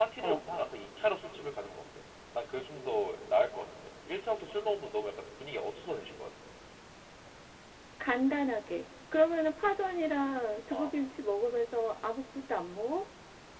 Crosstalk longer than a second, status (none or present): none